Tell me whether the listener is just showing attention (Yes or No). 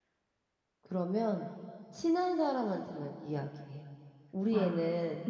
Yes